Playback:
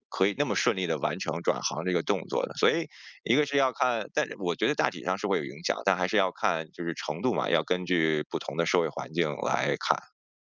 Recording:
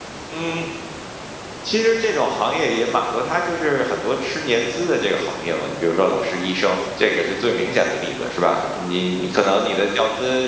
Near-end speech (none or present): present